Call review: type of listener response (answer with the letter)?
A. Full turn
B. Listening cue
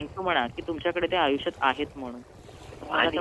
A